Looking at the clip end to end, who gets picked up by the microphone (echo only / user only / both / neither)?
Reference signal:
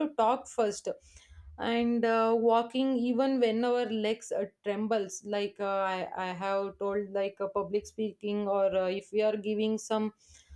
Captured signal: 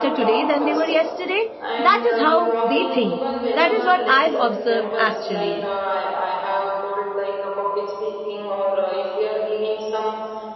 both